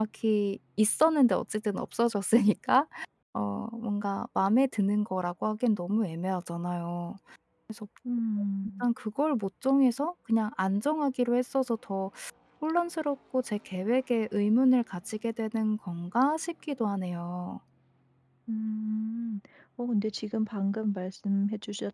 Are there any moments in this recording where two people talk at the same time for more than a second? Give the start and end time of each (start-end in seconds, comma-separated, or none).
none